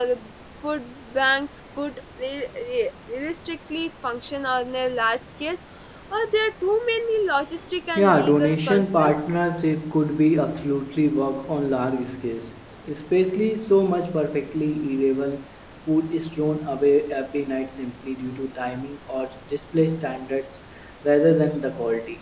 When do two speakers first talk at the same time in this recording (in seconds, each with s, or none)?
8.0 s